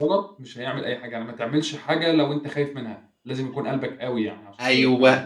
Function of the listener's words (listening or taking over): taking over